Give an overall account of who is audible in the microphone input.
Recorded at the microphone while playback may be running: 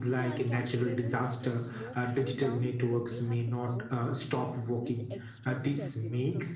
both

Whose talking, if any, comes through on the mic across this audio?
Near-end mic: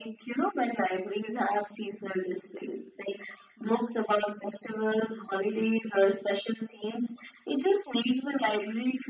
echo only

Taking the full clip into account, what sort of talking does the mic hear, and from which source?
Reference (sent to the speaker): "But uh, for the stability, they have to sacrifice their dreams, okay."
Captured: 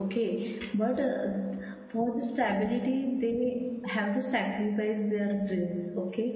echo only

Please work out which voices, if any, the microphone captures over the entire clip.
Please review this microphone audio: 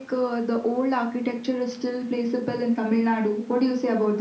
echo only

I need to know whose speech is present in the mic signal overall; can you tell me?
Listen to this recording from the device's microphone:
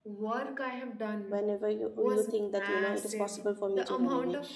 both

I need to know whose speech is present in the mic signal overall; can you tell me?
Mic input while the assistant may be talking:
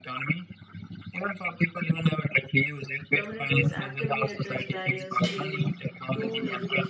both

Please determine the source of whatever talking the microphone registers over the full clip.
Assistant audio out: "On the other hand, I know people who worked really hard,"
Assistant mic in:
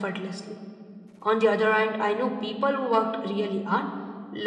echo only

